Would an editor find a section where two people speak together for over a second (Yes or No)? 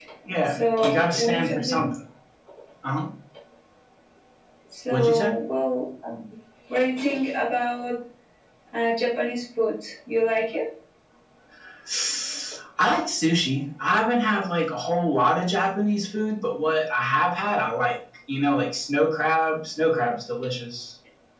Yes